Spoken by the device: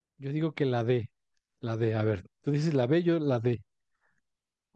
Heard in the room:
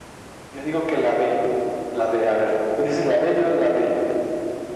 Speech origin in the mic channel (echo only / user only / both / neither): echo only